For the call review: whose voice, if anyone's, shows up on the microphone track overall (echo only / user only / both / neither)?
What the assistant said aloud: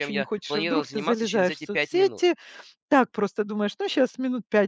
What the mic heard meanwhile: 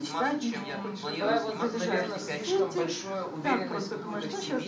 both